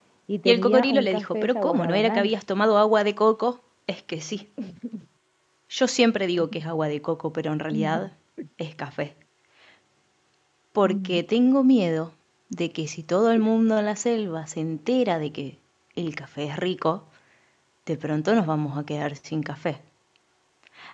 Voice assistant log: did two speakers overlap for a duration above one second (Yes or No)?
Yes